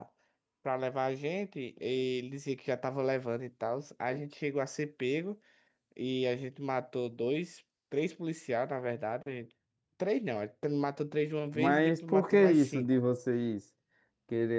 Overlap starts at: 11.5 s

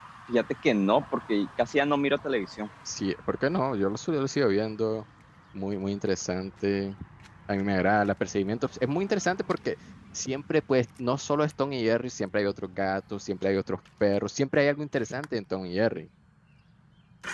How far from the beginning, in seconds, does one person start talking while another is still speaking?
none

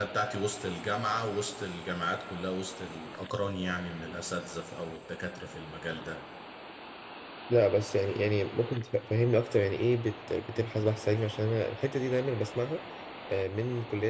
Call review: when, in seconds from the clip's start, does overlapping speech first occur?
none

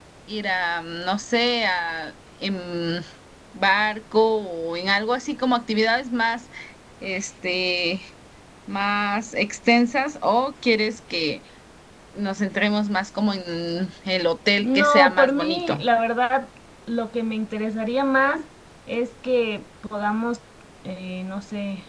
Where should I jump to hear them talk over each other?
14.6 s

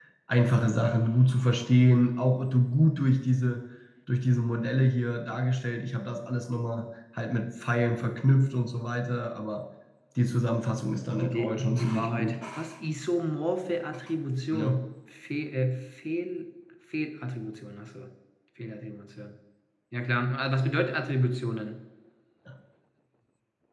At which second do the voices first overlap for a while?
11.1 s

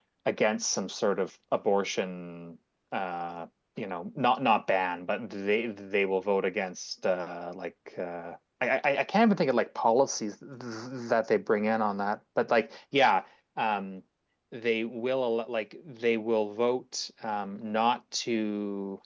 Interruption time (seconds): none

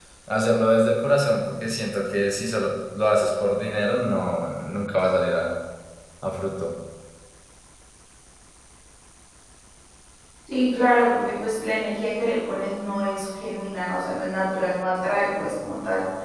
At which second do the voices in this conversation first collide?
none

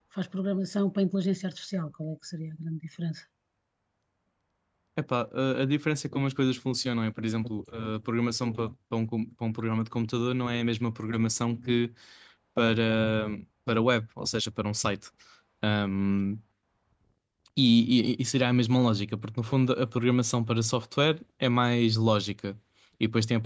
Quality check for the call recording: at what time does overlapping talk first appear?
none

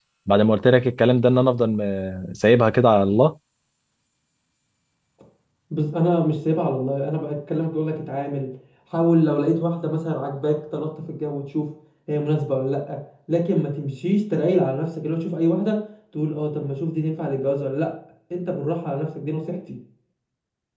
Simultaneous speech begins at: none

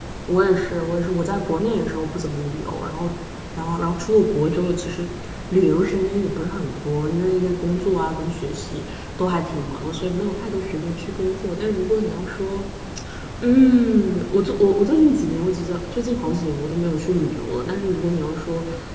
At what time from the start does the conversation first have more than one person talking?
none

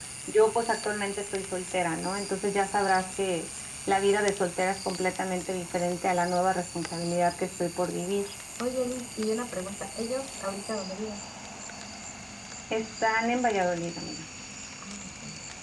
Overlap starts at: none

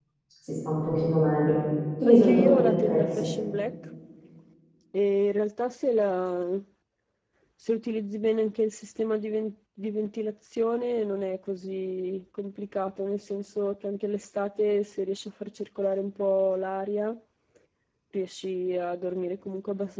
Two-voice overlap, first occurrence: 2.0 s

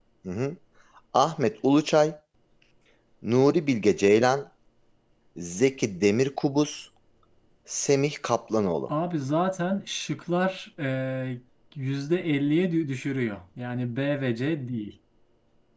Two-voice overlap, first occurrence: none

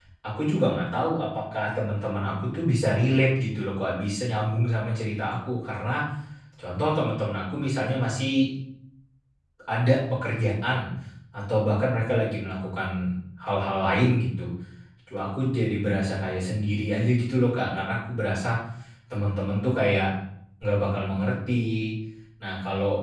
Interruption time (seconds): none

